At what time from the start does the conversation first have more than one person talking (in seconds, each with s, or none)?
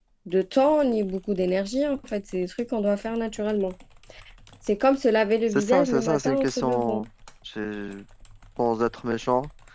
5.5 s